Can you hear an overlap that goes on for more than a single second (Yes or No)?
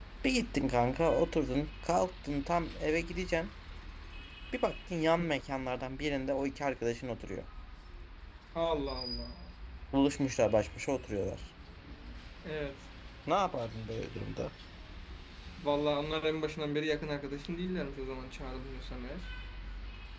No